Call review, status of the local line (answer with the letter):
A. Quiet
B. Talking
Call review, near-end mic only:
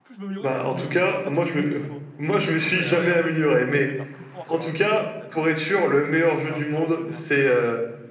B